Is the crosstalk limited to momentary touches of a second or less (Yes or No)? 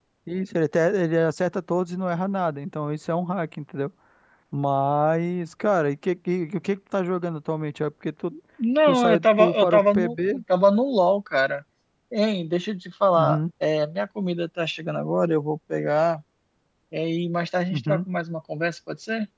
No